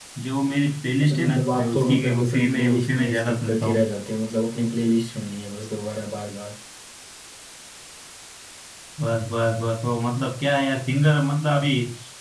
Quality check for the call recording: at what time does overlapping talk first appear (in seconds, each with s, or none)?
1.0 s